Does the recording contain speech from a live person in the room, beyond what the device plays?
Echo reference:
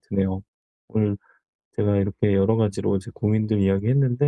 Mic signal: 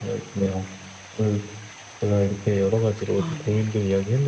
Yes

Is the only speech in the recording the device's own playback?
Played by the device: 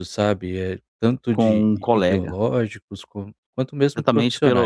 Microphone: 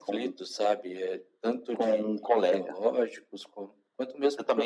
Yes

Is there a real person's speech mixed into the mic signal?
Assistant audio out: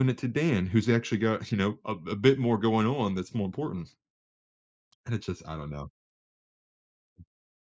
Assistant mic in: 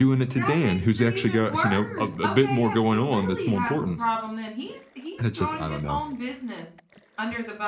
Yes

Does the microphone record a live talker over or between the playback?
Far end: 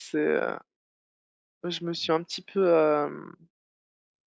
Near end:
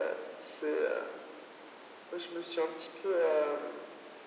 No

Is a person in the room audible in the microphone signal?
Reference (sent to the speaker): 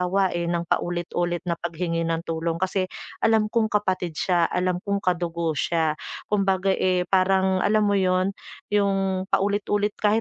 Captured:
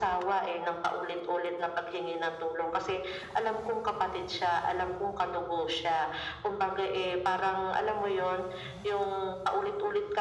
No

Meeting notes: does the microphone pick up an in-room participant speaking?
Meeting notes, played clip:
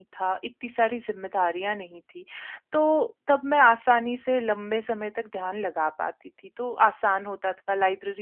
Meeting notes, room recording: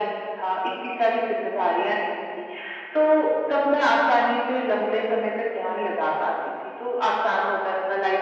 No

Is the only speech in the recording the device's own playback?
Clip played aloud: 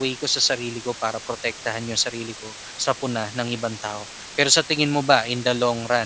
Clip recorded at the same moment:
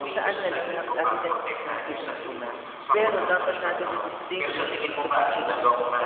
No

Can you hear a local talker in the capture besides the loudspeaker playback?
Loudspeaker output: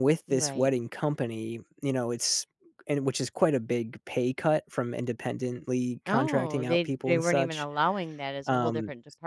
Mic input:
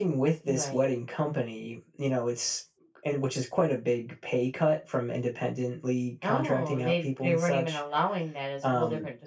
No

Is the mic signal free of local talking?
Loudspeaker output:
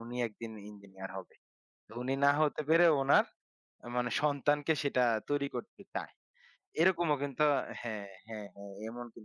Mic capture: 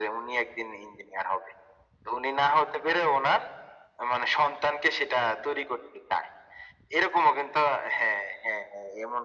Yes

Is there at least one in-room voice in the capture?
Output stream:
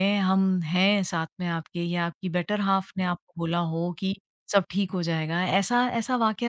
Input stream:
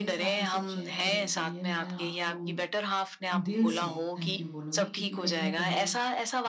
Yes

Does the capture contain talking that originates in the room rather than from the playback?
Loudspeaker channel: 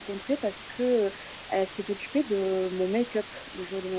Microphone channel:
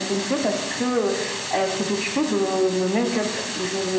No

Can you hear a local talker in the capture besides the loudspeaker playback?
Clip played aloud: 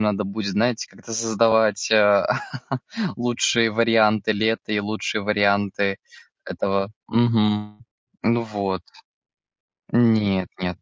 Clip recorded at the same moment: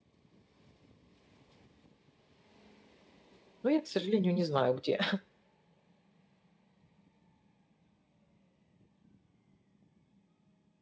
Yes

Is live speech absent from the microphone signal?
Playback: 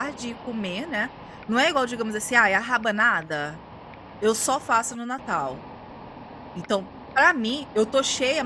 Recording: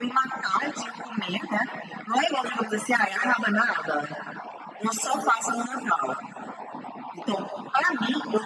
Yes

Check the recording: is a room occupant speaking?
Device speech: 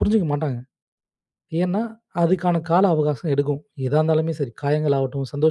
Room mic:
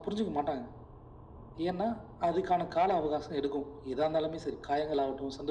No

